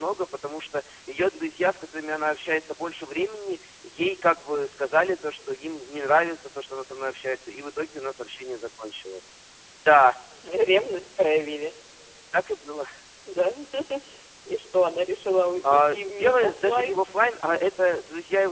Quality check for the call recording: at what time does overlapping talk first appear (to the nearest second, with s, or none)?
16 s